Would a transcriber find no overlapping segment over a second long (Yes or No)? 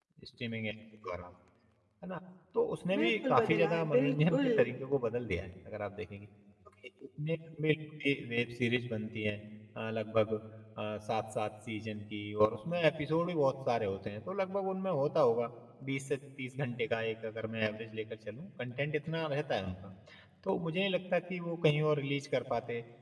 No